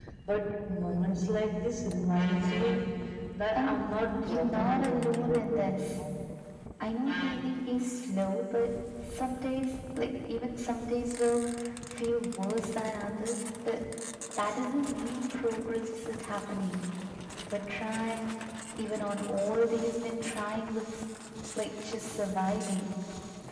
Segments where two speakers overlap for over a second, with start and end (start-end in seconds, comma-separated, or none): 4.2-6.0